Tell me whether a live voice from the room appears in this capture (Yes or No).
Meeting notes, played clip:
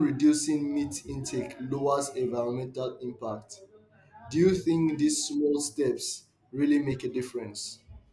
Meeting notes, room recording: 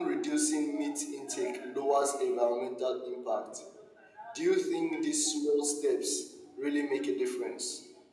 No